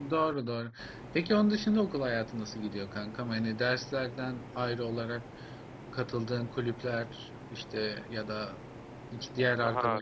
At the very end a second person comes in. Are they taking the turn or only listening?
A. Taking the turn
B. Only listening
A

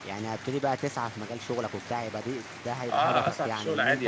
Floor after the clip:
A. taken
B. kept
A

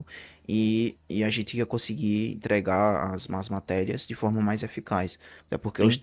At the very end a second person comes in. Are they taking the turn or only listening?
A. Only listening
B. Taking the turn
A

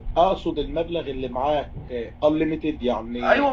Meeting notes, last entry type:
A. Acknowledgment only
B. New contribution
B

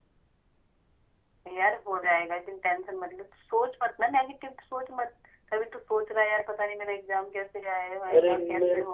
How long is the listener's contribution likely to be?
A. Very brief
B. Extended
B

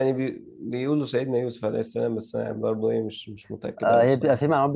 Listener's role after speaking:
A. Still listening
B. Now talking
B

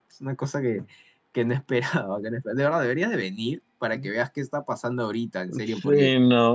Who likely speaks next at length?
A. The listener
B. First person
A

